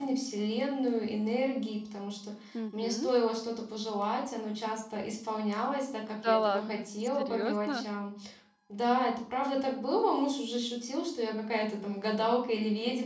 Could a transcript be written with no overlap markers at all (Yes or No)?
No